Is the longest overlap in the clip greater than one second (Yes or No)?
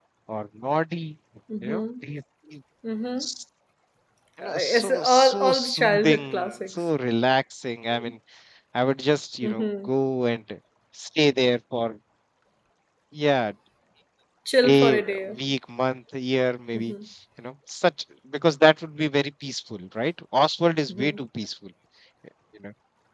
Yes